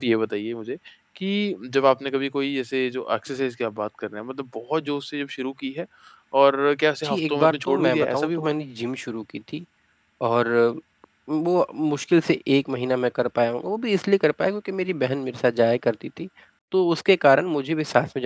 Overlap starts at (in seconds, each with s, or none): 7.0 s